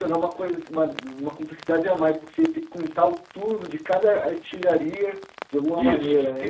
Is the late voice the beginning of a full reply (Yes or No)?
Yes